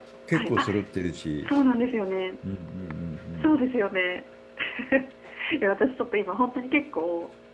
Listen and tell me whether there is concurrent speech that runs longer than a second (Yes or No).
No